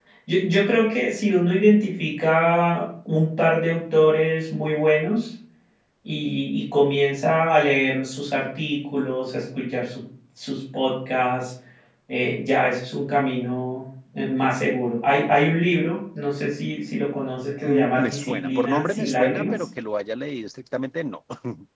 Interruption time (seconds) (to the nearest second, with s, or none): 18 s